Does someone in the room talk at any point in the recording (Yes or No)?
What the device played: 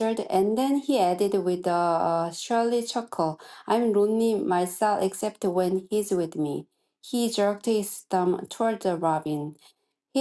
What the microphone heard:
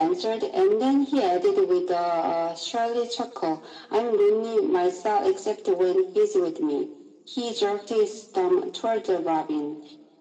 No